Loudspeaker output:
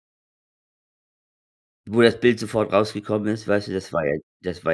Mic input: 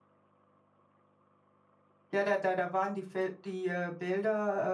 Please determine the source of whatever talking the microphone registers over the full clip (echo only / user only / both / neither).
user only